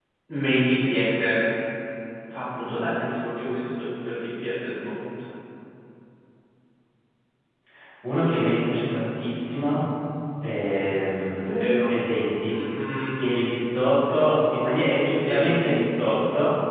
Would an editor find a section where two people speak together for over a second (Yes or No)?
No